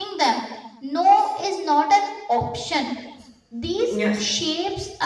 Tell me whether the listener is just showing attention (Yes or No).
Yes